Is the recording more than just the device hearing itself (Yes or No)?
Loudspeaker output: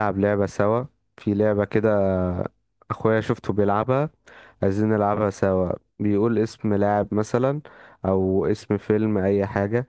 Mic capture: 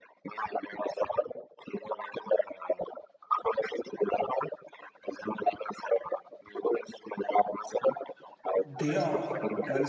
Yes